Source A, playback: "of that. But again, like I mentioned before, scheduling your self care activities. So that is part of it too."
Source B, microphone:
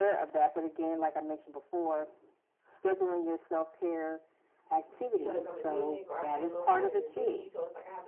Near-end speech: present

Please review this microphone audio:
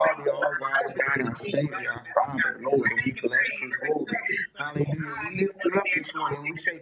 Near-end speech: none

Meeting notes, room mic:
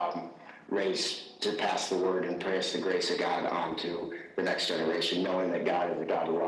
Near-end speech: none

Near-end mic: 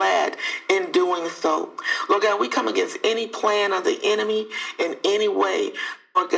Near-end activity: none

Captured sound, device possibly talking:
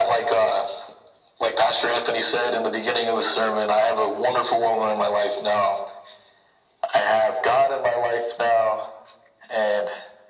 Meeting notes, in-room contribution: none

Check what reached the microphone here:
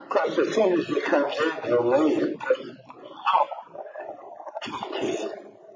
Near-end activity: none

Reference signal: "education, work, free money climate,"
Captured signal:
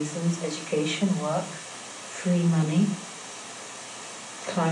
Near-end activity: none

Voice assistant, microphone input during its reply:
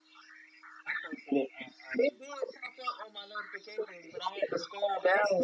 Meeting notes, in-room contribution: none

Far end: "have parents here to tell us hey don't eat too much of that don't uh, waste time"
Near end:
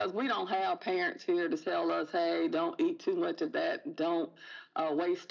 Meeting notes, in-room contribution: none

